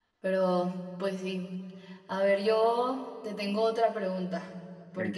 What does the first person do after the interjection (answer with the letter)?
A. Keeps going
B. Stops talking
A